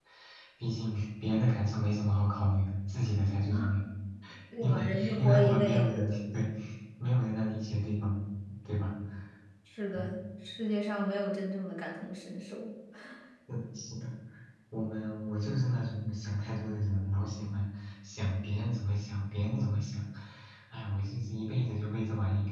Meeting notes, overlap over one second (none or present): present